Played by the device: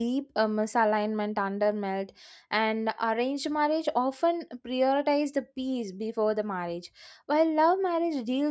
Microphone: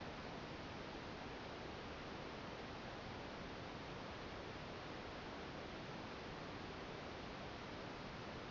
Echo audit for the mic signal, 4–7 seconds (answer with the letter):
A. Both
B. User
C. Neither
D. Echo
C